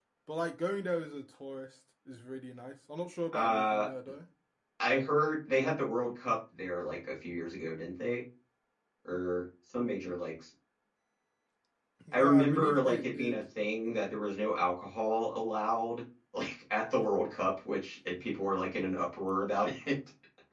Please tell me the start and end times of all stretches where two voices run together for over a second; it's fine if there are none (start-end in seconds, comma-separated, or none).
12.1-13.4